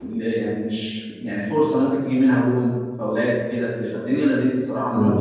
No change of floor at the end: No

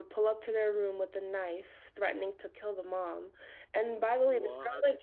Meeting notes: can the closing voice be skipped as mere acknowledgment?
Yes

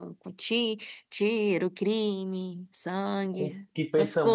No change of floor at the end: No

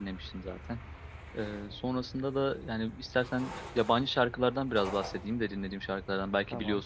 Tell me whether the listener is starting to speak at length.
No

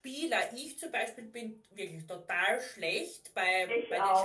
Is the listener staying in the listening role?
Yes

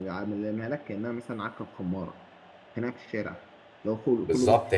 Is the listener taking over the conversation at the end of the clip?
Yes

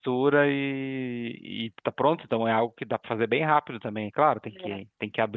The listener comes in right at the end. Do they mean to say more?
No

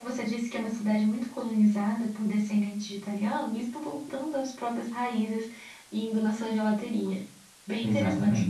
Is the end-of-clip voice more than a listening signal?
Yes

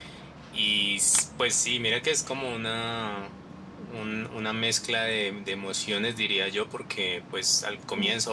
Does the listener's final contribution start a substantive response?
No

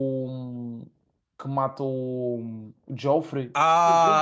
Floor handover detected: Yes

